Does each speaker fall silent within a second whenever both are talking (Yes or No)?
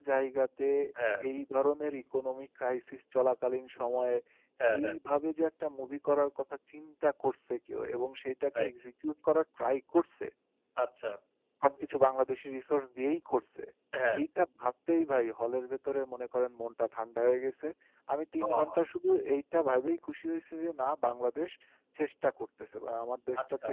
Yes